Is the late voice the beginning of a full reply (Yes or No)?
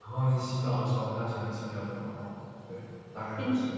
Yes